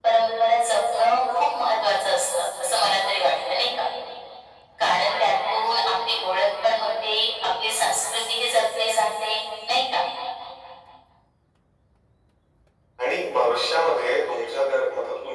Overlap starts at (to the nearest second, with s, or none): none